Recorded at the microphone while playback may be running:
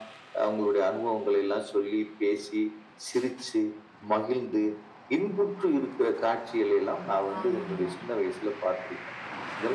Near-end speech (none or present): present